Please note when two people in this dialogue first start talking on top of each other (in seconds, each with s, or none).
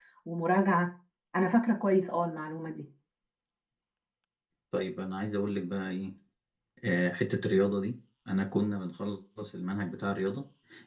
none